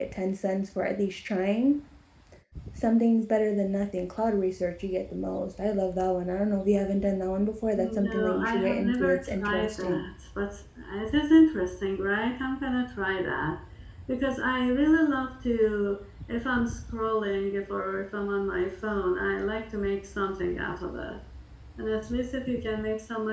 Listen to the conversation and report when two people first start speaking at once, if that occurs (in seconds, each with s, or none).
7.8 s